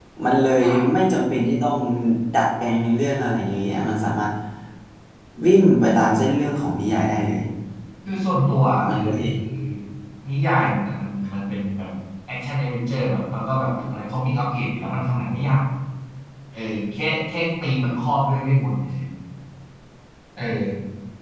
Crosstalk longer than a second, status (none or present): none